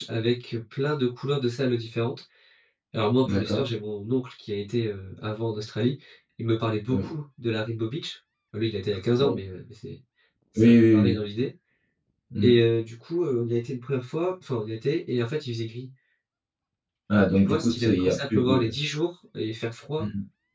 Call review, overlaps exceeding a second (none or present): present